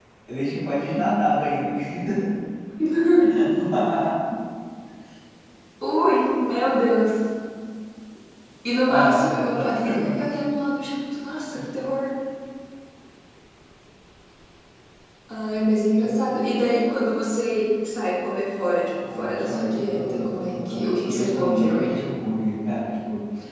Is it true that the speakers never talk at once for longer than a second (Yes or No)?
No